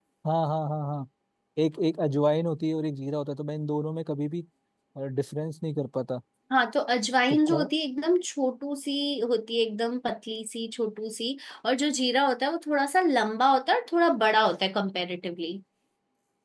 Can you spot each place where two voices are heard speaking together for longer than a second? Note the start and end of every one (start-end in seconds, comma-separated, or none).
none